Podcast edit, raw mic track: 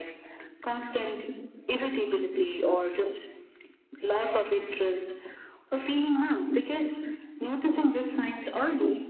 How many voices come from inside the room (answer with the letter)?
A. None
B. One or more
A